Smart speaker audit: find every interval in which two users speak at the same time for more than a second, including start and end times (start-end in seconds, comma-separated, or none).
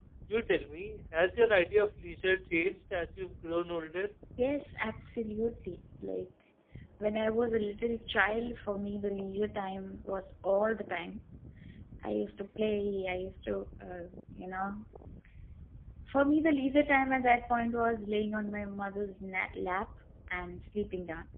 none